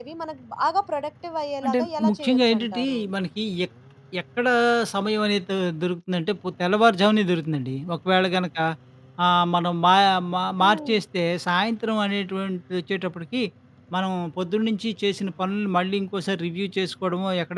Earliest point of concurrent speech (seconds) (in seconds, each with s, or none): 1.6 s